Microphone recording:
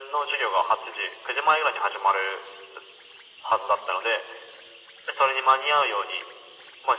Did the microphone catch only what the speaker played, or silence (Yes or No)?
Yes